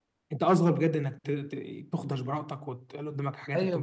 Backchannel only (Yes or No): No